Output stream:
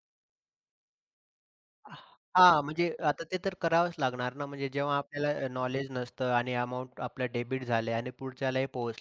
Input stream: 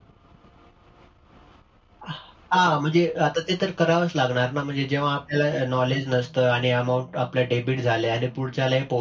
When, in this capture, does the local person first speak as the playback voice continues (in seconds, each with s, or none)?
none